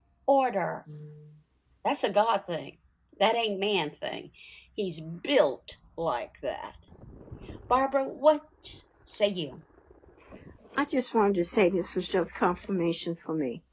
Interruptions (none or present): none